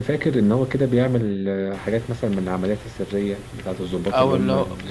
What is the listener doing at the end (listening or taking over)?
taking over